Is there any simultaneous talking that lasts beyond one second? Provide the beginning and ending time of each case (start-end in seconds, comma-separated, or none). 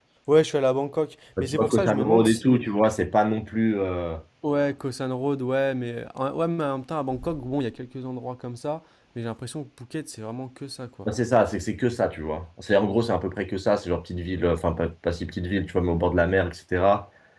1.4-2.6